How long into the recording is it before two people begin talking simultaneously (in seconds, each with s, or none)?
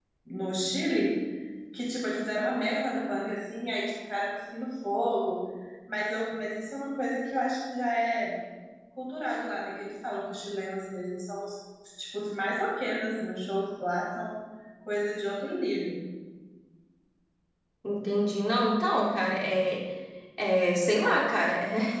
none